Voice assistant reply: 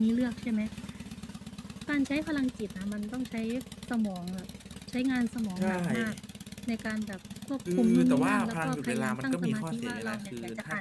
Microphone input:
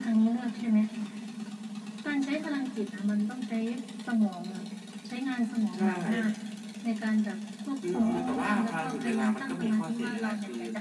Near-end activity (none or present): none